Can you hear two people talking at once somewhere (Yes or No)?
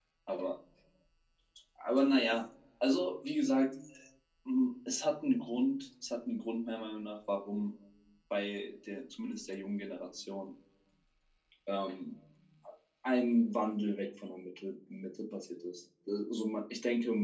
No